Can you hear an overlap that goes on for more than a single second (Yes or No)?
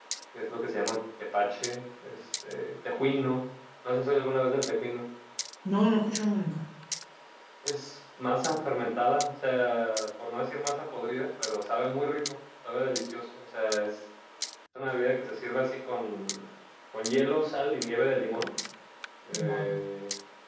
No